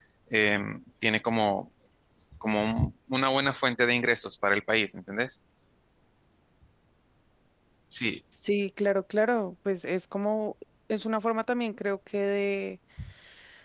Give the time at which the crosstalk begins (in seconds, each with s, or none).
none